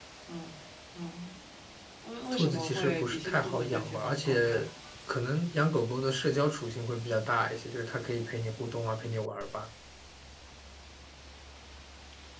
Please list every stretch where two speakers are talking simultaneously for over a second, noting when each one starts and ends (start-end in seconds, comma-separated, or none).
2.3-4.7